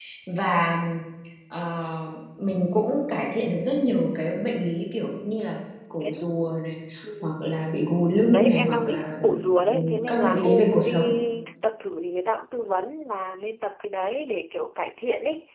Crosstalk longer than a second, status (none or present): present